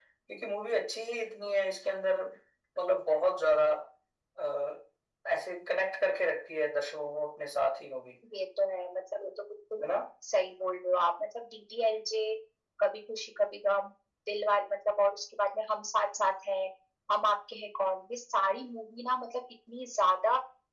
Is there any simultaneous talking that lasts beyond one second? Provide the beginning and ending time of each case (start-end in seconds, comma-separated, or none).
none